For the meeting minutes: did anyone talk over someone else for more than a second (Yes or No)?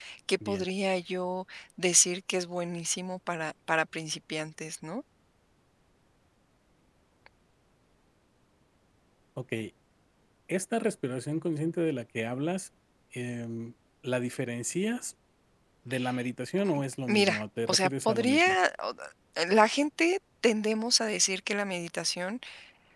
Yes